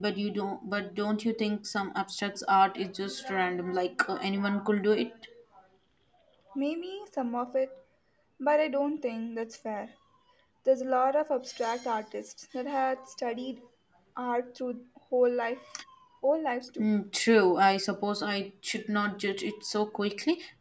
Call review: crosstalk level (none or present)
none